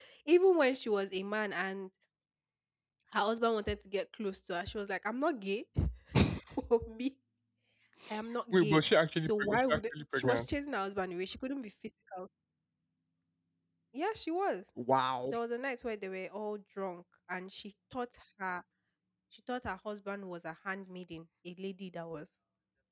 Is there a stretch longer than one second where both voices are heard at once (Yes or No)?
Yes